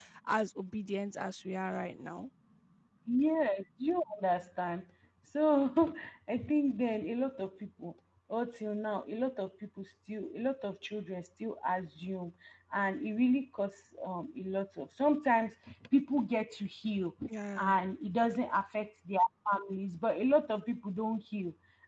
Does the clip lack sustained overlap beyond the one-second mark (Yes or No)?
Yes